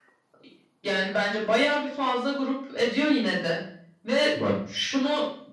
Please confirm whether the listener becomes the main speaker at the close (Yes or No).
No